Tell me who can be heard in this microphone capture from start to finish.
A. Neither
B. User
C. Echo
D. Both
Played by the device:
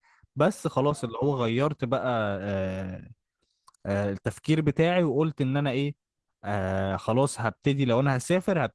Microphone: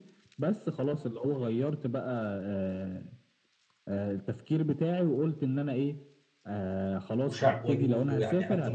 D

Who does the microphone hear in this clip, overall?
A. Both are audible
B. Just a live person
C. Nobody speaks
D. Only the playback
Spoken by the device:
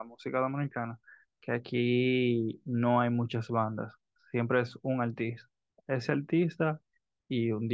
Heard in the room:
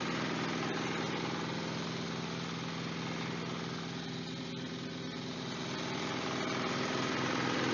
C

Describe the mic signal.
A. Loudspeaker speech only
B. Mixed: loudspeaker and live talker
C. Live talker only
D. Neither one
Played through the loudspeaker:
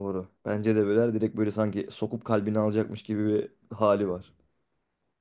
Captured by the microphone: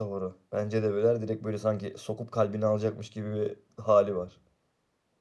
A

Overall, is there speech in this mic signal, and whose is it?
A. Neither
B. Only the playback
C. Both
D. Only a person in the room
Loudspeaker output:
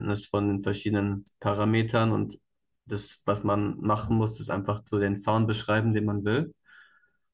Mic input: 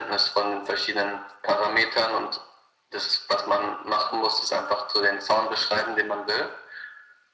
B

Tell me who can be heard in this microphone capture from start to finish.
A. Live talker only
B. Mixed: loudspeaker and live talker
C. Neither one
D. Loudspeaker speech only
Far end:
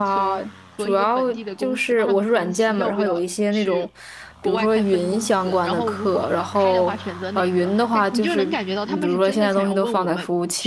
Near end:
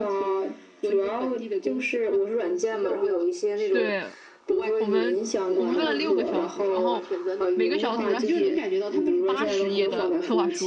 B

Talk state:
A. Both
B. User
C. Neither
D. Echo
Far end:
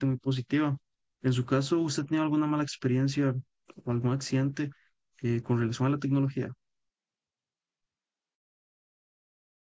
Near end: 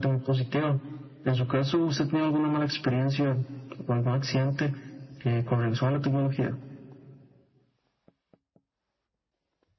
D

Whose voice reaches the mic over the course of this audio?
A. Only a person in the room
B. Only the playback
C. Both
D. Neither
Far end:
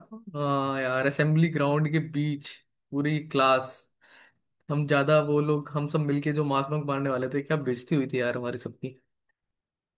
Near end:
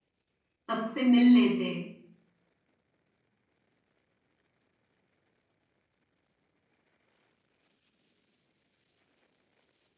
A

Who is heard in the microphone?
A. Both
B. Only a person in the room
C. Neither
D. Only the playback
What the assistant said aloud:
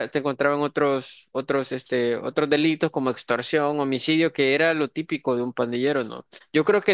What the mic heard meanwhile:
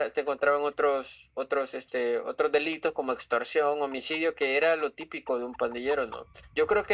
D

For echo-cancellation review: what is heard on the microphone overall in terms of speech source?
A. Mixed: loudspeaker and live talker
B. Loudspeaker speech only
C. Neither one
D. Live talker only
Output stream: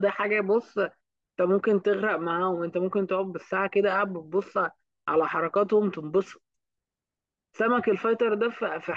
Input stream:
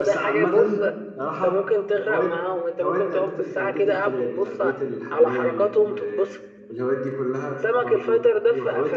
A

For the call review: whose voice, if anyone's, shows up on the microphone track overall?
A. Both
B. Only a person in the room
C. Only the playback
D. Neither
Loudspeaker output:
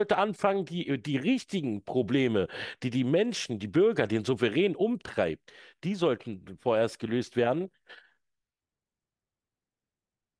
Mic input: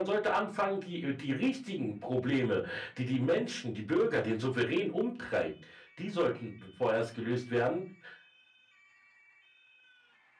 C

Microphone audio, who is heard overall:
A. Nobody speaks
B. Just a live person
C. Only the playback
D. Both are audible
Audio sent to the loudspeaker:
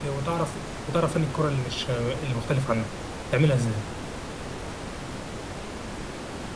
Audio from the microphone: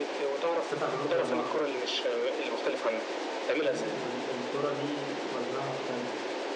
D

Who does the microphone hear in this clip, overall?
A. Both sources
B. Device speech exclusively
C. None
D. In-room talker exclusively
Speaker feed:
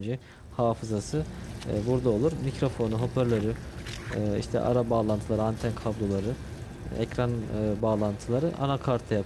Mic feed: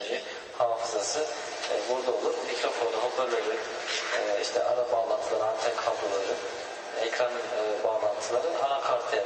B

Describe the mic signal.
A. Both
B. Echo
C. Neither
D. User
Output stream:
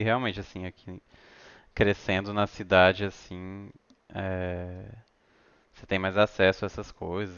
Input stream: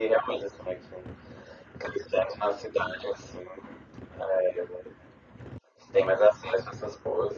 B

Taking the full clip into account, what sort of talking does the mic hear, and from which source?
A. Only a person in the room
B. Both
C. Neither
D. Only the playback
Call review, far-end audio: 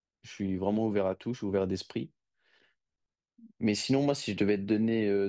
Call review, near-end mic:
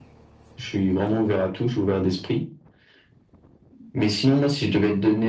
D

